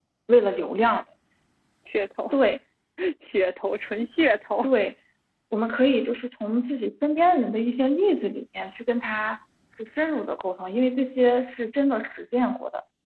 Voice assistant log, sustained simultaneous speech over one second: none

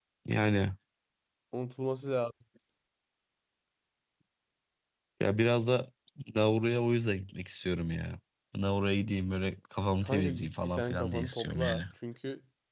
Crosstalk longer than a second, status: present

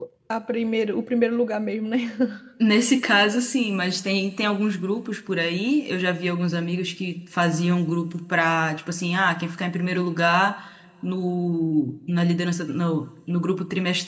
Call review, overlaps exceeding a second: none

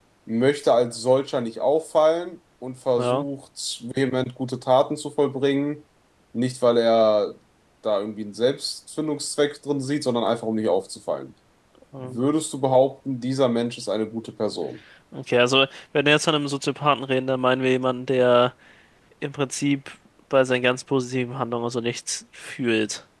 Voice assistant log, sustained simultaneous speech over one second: none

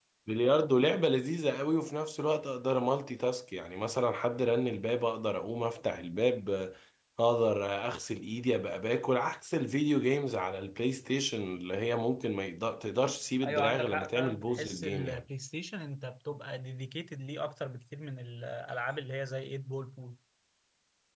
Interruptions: present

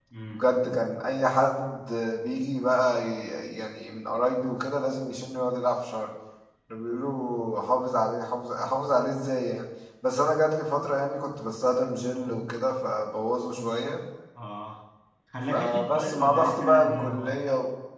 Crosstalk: present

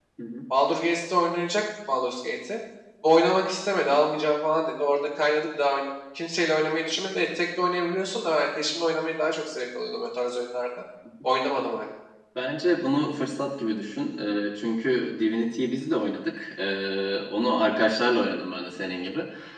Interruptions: none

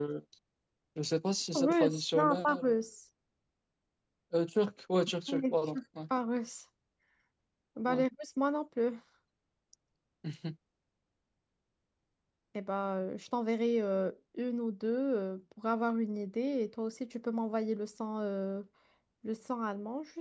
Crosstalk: present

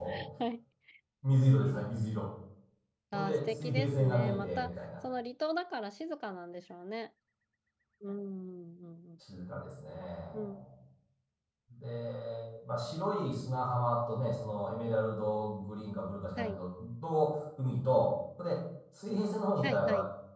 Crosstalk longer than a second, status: present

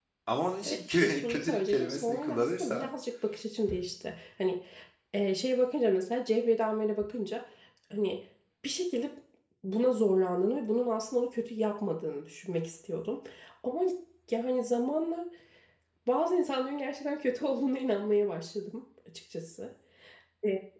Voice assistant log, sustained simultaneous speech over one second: present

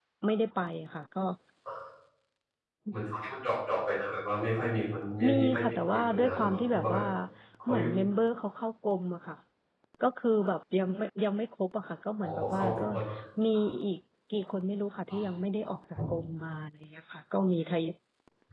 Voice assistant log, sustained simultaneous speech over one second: present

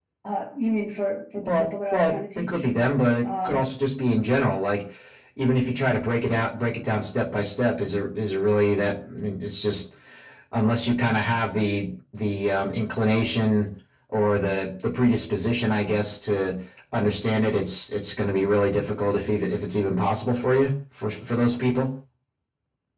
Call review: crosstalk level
present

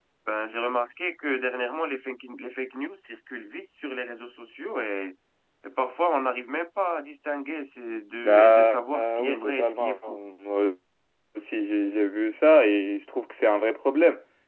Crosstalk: present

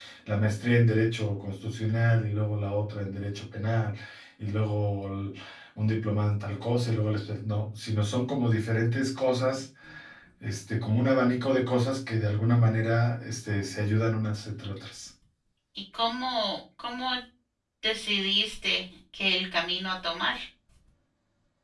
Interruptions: none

